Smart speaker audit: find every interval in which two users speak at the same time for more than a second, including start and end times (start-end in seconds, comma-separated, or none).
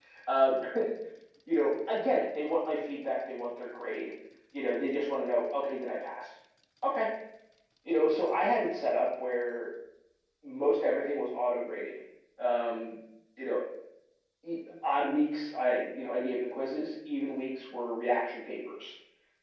none